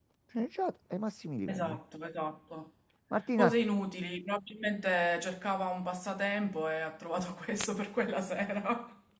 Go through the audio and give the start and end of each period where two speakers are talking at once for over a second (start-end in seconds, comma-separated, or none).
none